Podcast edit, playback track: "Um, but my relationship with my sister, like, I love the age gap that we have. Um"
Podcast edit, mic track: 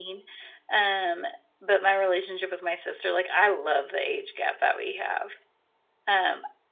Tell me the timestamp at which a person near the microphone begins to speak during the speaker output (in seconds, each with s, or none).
none